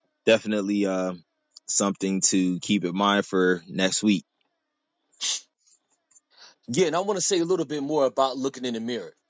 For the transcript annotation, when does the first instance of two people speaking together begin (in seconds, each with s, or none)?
none